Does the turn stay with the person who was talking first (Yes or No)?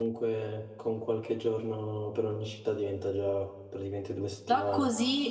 No